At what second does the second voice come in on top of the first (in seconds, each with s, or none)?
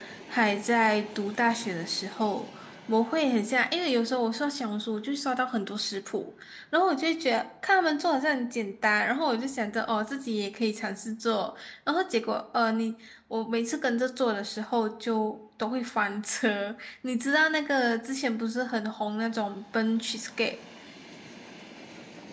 none